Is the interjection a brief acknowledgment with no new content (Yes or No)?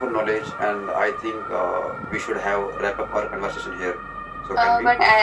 No